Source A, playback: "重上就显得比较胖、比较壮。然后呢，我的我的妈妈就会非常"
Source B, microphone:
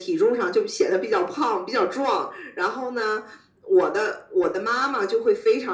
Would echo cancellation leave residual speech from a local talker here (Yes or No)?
No